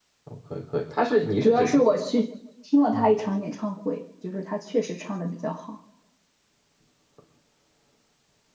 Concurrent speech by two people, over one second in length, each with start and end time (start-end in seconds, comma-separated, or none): none